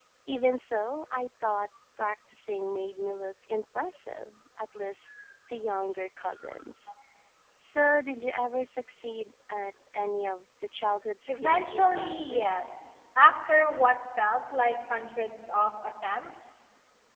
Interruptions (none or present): present